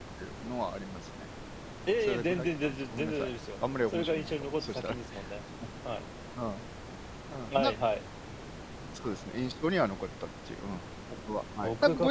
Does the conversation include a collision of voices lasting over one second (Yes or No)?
Yes